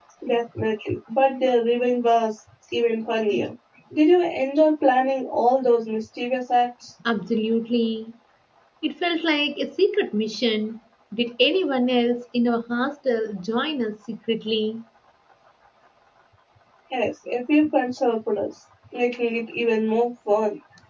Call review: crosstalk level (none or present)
none